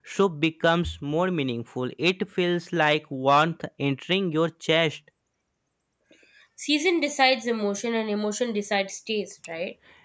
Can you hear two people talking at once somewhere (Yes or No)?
No